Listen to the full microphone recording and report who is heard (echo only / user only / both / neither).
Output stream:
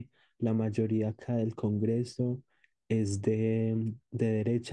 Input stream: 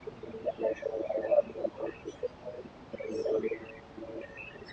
echo only